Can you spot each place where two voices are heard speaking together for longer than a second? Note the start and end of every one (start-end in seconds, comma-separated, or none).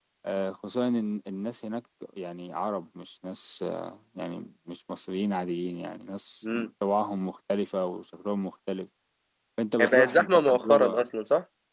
9.8-11.1